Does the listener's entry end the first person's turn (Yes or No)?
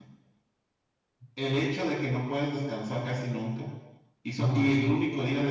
No